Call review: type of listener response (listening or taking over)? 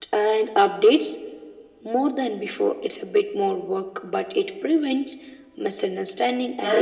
taking over